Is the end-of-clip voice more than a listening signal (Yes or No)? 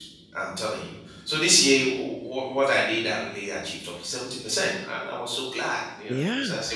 Yes